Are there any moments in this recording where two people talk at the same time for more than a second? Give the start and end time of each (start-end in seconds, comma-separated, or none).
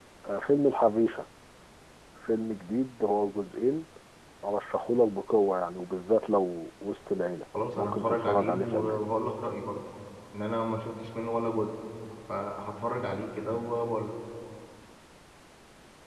7.8-9.0